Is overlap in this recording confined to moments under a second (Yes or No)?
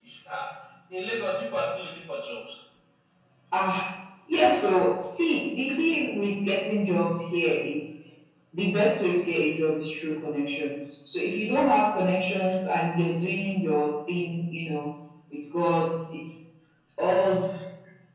Yes